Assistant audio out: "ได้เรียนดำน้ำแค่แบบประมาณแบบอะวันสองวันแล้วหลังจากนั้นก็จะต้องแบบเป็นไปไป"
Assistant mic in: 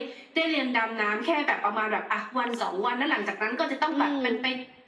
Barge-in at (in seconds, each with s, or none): 3.9 s